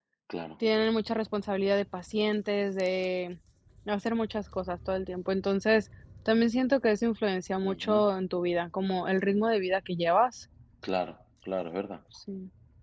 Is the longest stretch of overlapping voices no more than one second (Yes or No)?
Yes